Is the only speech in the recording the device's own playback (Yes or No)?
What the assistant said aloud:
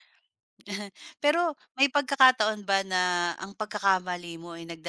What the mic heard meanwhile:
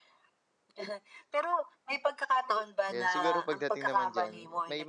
No